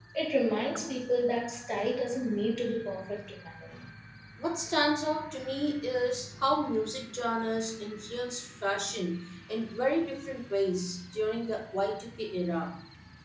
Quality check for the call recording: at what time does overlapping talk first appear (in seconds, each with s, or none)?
none